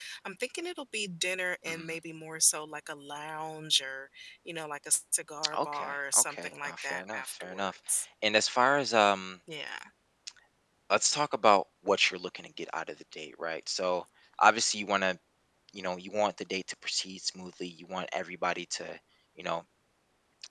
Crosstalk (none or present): present